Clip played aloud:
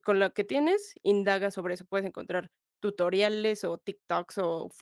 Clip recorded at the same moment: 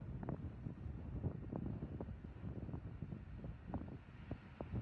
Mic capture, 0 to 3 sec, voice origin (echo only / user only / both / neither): neither